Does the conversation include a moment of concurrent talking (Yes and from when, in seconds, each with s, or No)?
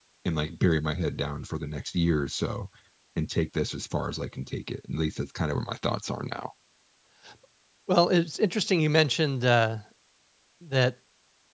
No